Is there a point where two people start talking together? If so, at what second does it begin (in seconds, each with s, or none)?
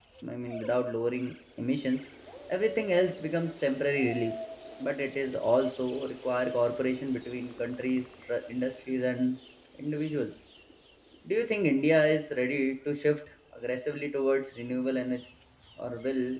none